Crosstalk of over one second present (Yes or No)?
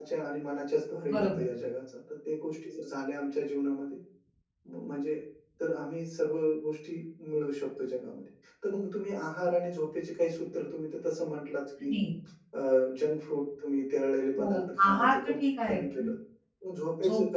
Yes